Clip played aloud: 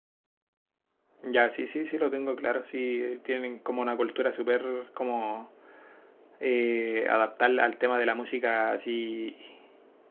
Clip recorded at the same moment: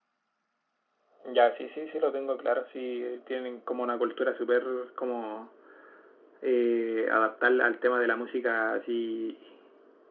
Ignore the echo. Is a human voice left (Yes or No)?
No